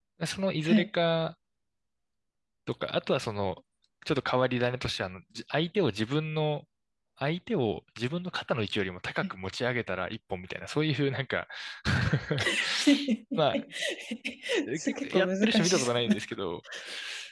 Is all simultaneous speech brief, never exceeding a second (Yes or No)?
No